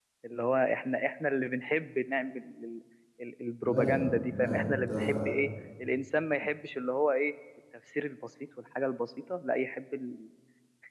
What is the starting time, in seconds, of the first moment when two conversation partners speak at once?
3.6 s

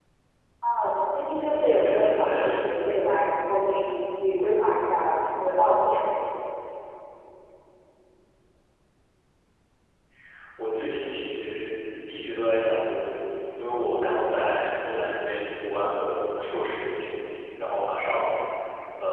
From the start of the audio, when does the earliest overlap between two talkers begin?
1.4 s

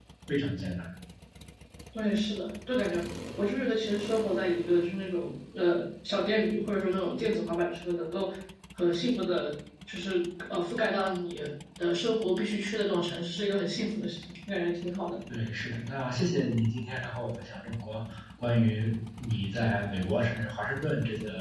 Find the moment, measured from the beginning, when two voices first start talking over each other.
none

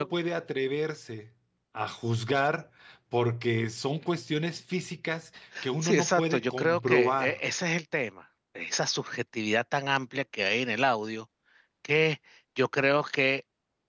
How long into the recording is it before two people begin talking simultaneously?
5.8 s

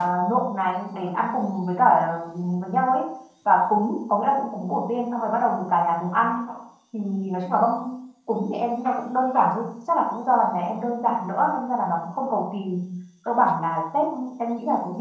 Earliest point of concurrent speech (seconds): none

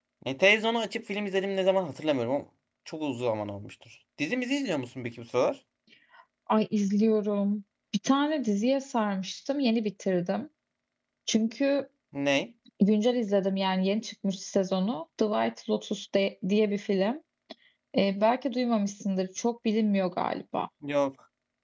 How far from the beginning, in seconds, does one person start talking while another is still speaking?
none

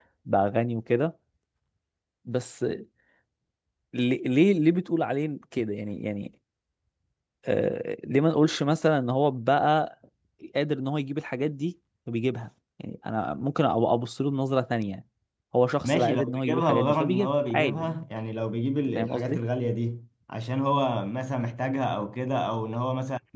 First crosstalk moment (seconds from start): 15.8 s

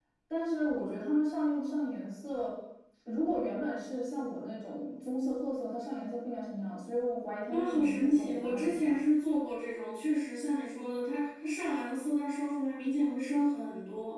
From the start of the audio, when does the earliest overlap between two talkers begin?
7.5 s

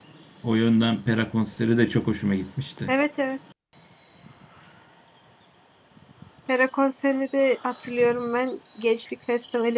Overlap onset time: none

